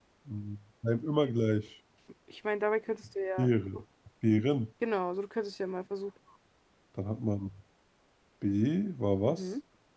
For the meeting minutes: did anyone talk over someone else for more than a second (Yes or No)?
No